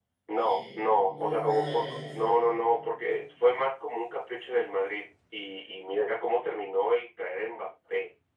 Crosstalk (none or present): present